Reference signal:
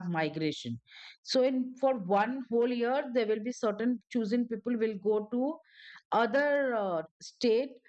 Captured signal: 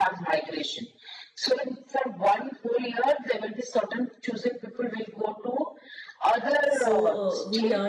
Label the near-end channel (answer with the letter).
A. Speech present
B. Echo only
A